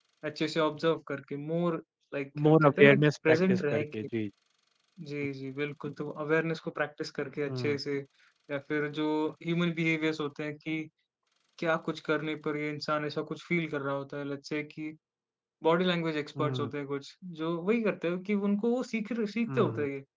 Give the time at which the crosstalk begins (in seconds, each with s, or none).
2.4 s